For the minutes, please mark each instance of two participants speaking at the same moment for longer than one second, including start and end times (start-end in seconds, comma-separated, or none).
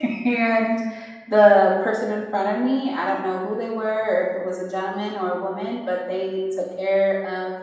none